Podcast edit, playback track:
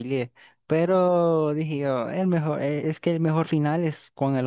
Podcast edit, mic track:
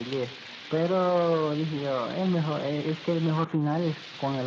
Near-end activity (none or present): none